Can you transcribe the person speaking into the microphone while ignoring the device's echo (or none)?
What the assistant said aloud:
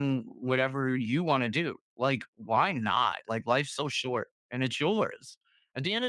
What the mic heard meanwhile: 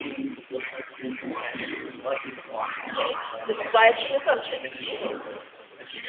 okay. This is why it's an assumption.